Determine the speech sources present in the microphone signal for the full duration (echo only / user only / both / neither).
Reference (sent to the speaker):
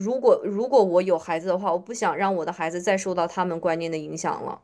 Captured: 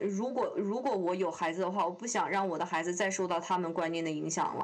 echo only